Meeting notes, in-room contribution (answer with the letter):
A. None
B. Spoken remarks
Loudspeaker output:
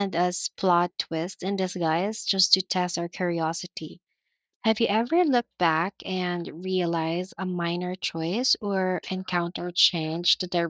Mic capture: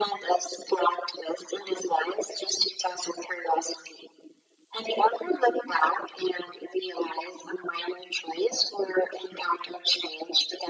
A